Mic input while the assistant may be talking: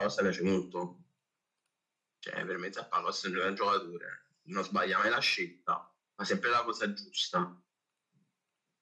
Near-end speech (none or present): none